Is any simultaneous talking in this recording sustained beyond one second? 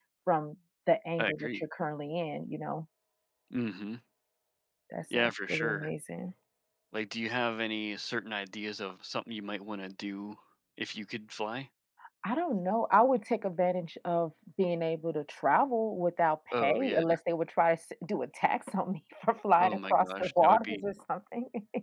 Yes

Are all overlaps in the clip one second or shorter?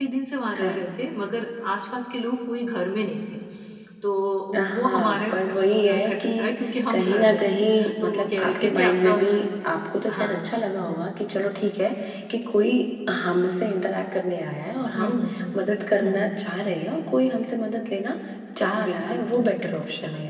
No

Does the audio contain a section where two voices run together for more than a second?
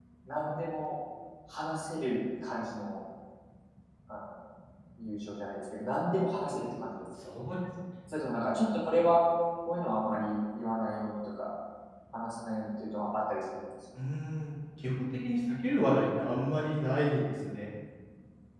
No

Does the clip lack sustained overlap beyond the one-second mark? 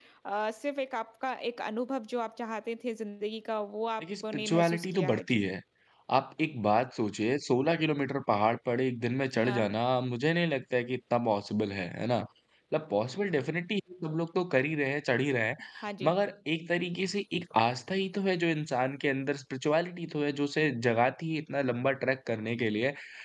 No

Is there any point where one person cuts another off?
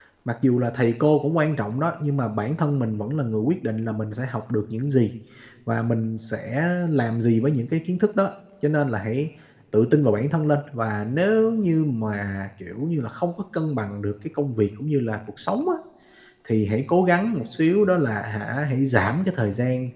No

